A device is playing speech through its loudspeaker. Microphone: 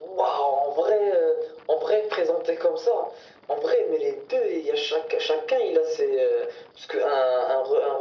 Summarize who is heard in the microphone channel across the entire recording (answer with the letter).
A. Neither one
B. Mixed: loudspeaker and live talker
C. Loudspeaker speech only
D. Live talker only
C